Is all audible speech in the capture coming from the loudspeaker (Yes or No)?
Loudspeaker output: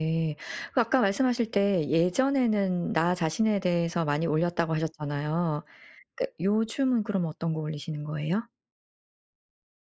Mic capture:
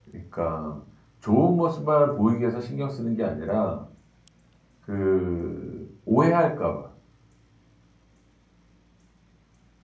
No